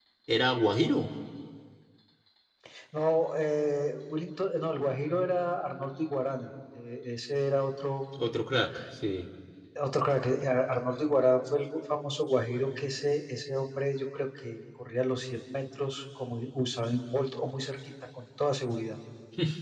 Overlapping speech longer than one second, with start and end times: none

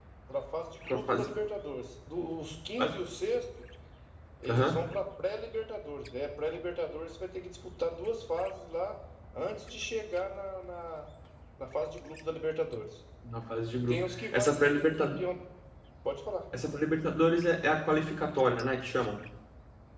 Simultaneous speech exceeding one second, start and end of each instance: 13.7-15.2

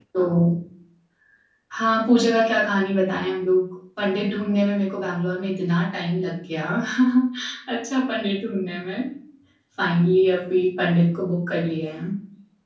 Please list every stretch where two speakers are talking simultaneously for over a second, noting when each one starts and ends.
none

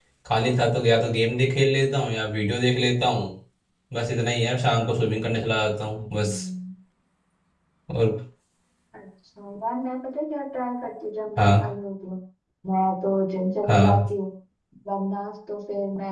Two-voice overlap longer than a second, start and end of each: none

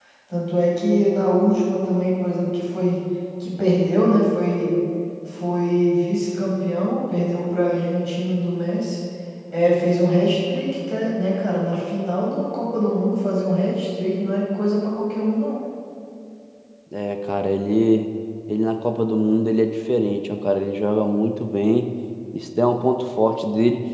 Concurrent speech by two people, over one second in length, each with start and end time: none

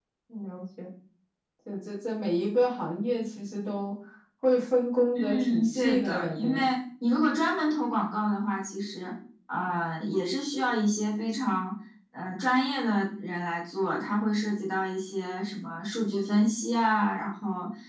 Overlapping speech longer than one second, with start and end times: 5.2-6.6

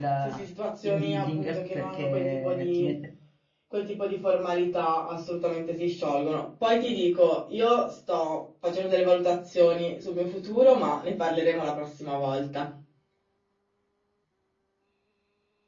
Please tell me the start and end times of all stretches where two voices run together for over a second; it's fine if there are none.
0.8-2.9

